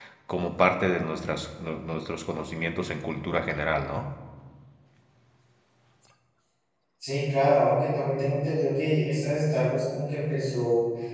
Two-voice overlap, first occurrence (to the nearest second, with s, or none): none